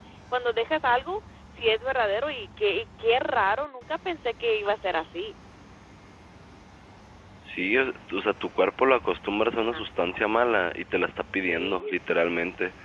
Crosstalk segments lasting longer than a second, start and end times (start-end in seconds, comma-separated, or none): none